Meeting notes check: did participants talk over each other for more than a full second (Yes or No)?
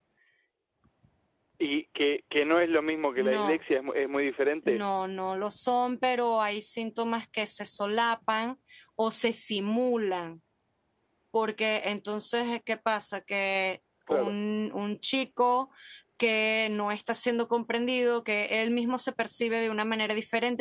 No